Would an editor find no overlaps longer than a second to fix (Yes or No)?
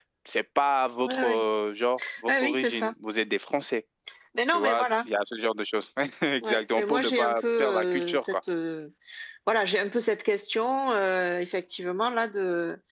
No